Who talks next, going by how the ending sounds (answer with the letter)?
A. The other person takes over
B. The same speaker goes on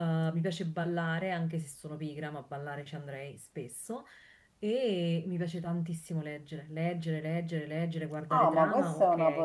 A